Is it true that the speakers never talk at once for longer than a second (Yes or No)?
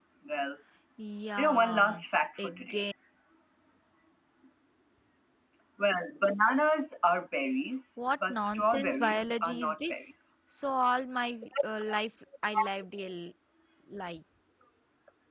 No